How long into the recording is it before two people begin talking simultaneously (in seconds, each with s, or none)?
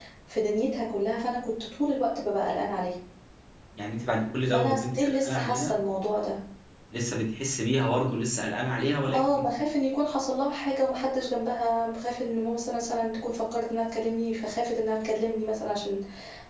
4.5 s